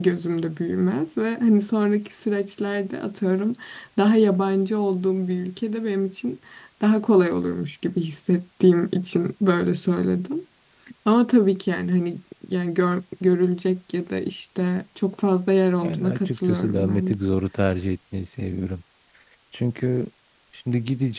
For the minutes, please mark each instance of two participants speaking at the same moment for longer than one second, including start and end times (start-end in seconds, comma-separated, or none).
15.8-17.1